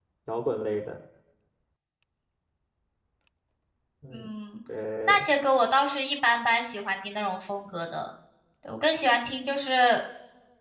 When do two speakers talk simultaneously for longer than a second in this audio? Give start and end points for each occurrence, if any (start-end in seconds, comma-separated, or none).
none